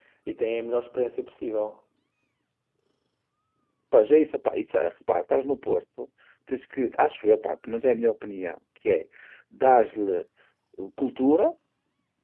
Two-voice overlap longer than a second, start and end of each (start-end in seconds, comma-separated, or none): none